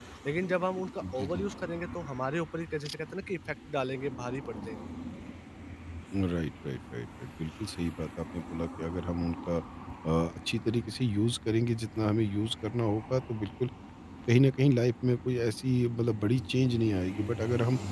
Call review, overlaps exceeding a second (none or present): none